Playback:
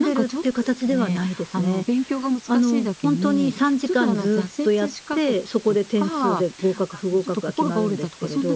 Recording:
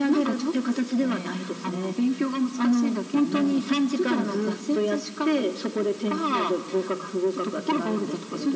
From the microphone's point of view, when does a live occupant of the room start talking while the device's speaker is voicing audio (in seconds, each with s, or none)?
none